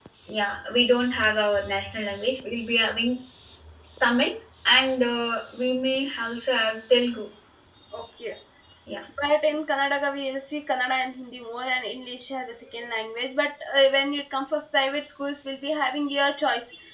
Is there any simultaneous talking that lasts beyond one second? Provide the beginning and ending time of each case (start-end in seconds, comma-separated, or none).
none